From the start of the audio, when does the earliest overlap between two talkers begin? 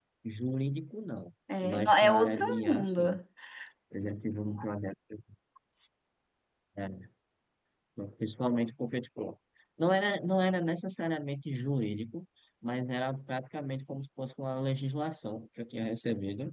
1.5 s

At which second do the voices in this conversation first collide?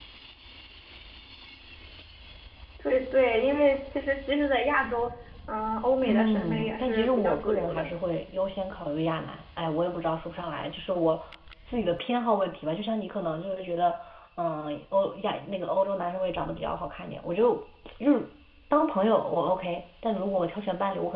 6.1 s

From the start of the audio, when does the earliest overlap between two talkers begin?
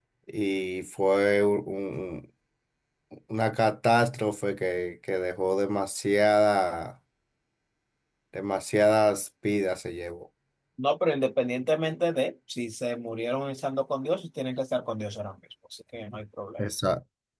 none

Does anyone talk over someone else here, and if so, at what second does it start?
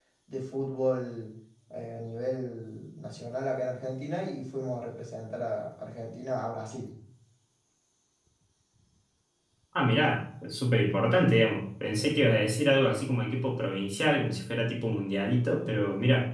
none

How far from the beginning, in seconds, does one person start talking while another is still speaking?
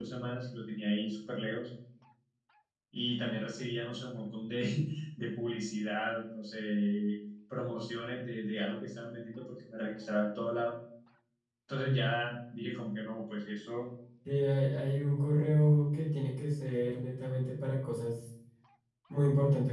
none

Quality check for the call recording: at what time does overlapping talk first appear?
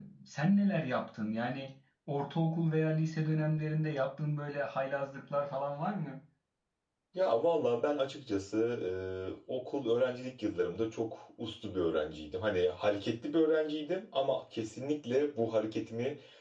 none

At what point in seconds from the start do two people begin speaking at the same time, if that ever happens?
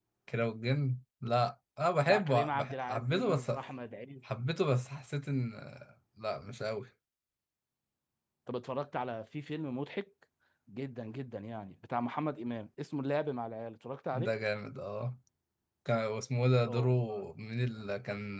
2.0 s

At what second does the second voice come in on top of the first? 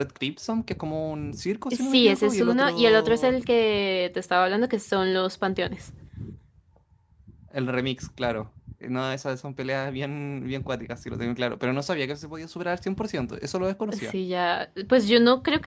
1.7 s

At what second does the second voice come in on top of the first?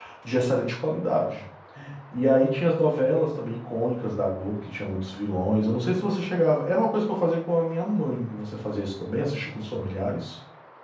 none

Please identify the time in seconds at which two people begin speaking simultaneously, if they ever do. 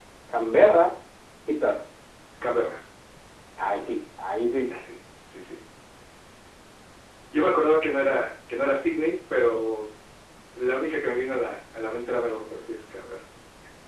none

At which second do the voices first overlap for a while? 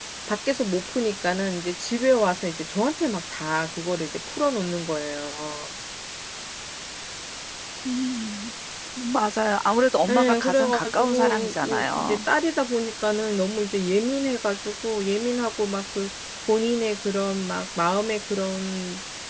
10.1 s

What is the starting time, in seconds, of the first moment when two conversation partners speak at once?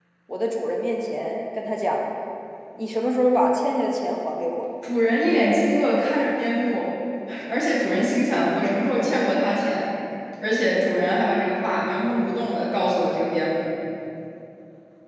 none

